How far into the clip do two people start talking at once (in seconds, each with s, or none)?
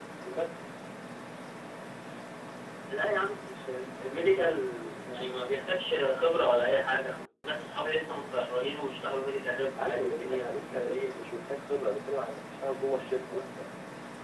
9.8 s